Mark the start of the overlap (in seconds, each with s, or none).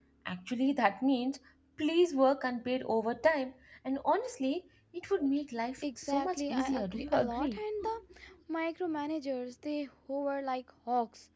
5.8 s